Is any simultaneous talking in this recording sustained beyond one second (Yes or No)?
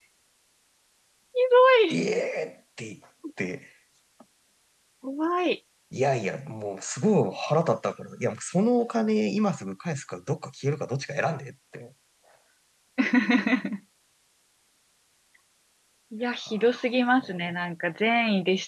No